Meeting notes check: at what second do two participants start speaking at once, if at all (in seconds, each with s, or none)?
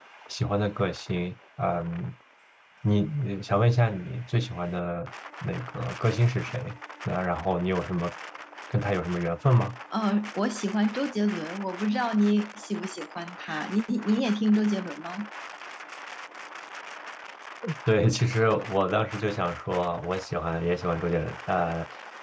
none